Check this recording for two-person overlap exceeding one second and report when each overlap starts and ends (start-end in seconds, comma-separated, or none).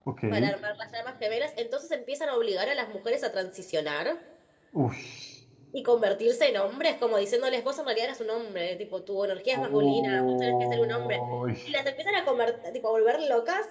9.5-11.2